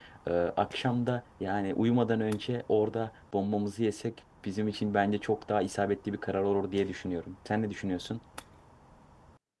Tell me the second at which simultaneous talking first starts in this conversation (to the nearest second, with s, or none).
none